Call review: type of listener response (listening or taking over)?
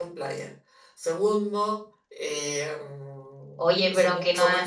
taking over